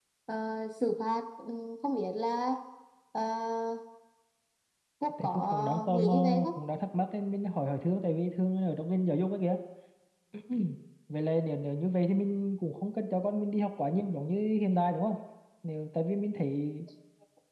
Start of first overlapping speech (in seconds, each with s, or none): 5.2 s